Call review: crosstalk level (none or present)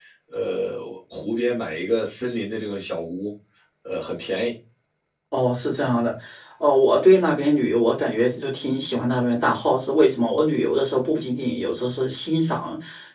none